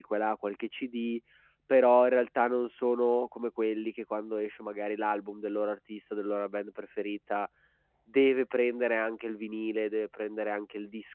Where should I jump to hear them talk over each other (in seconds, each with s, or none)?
none